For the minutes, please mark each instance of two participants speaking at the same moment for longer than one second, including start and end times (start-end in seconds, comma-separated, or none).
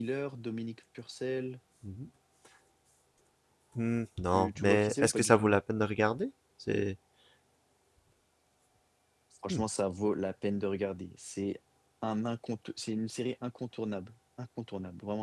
4.3-5.6